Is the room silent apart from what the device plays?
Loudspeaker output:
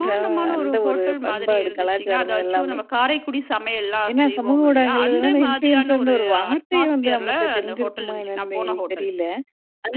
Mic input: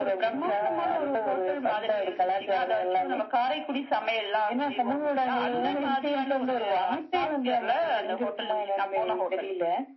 Yes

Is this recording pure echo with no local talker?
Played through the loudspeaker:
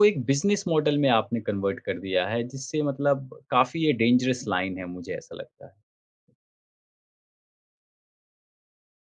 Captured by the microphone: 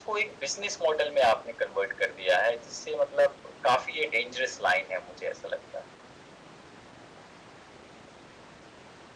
Yes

